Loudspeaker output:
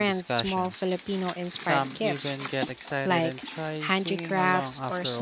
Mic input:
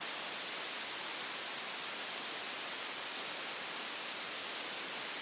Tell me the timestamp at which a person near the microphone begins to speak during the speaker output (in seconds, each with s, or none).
none